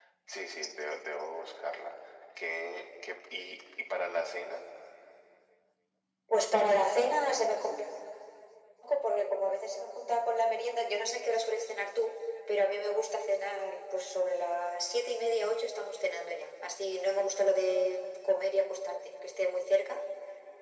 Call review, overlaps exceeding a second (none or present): none